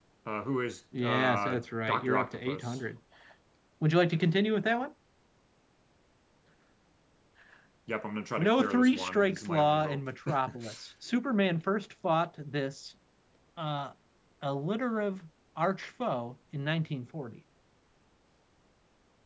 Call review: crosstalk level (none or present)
present